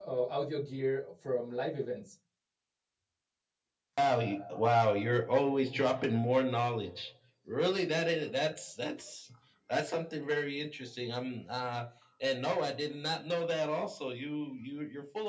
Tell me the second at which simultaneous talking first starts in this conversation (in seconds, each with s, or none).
none